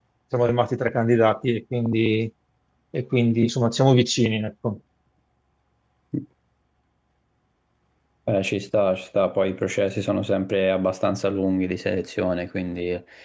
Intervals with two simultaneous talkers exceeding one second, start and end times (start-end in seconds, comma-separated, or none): none